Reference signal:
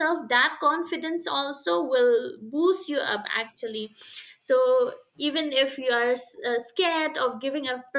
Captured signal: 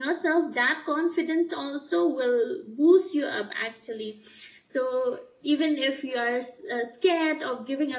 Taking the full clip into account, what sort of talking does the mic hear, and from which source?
echo only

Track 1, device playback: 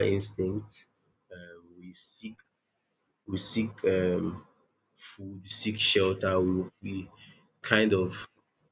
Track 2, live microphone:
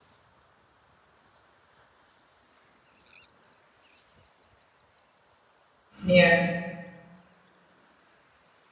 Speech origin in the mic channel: user only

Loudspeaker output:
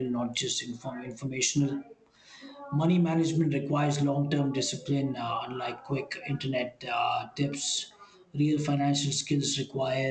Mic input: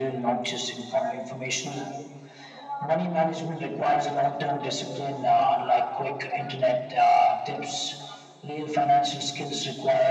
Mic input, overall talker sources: echo only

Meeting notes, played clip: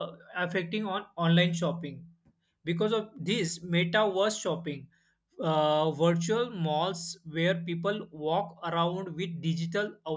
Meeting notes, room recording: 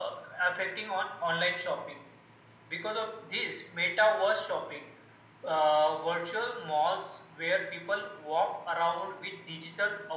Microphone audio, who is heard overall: echo only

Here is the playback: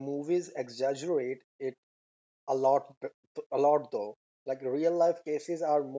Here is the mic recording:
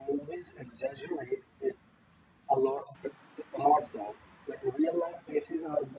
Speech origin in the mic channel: echo only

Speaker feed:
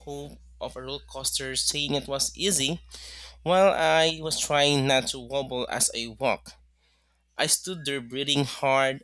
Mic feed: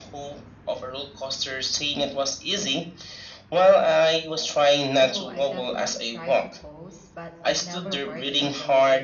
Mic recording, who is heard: both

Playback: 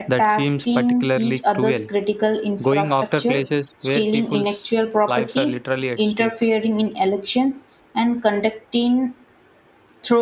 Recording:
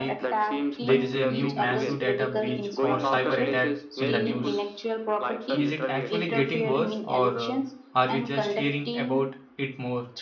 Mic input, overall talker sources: both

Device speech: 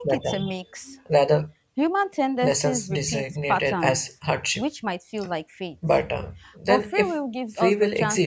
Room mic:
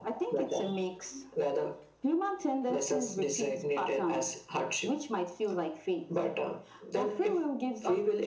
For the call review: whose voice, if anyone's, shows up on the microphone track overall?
echo only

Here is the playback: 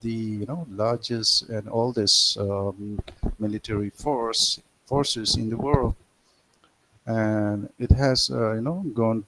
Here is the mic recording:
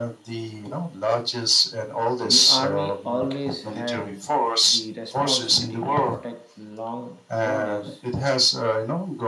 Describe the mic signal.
both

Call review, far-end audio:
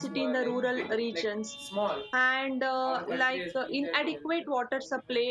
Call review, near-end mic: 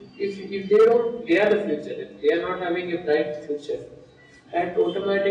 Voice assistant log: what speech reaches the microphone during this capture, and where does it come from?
user only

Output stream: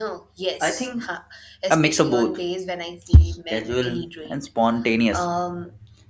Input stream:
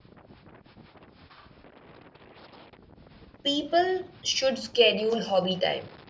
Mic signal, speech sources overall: user only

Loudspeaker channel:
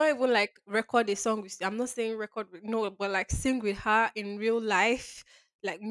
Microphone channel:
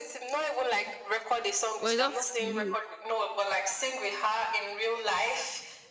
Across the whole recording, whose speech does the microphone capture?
both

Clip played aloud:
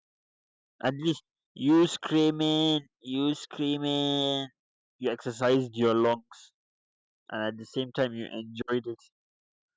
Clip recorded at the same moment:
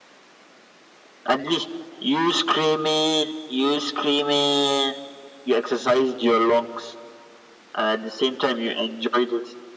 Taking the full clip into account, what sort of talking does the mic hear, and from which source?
echo only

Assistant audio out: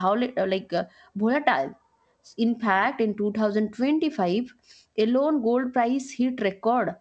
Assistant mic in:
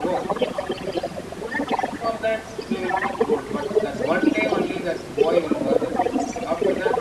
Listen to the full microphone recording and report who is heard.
both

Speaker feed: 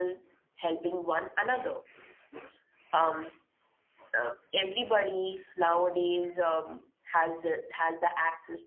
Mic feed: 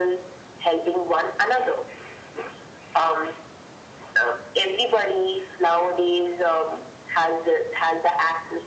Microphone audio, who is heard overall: echo only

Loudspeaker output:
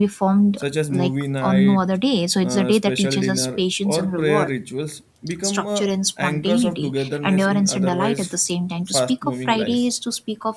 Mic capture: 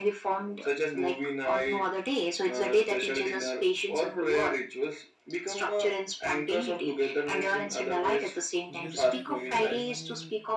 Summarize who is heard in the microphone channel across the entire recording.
both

